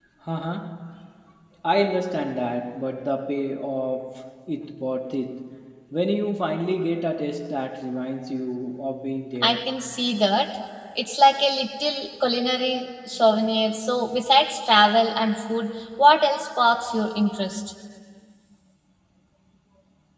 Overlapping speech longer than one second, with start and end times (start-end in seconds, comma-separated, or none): none